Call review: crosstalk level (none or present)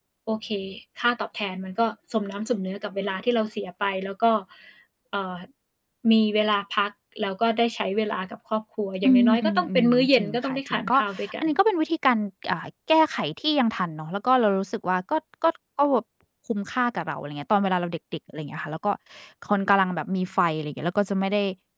present